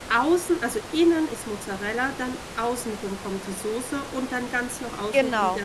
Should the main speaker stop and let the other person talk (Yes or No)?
No